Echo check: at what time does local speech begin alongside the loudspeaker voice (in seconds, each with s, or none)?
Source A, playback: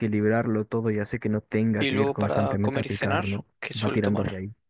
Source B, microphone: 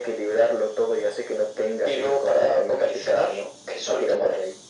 none